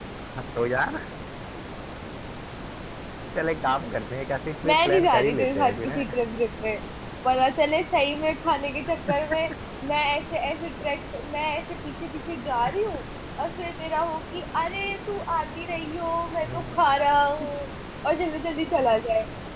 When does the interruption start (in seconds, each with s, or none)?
4.7 s